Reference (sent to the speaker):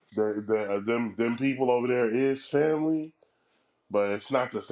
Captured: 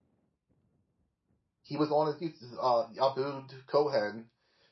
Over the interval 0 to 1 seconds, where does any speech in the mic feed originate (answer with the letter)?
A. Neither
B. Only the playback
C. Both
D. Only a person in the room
A